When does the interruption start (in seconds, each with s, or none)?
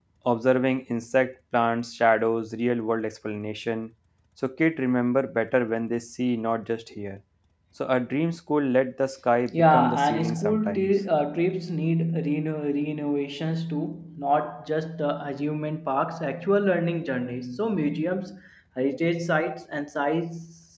9.5 s